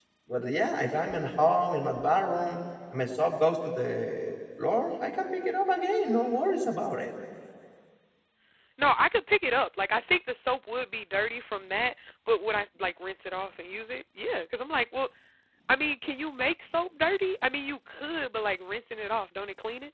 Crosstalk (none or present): none